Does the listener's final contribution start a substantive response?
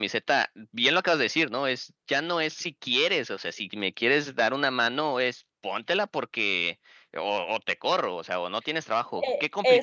Yes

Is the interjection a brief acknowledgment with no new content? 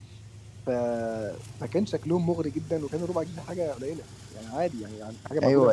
Yes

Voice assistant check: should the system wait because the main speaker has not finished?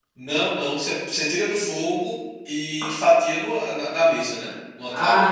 No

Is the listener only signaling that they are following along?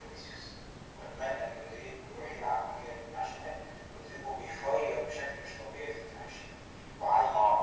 Yes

